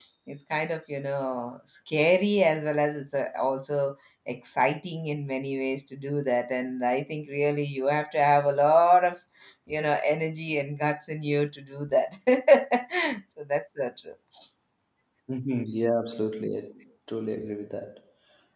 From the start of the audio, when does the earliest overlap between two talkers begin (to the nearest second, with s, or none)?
none